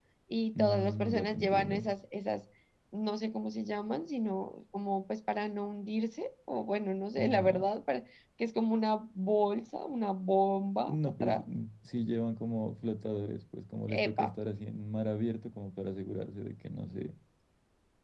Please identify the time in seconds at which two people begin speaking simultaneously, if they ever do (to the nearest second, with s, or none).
1 s